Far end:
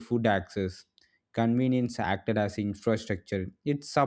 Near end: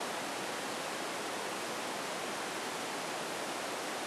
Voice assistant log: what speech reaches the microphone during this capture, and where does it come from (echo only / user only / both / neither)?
neither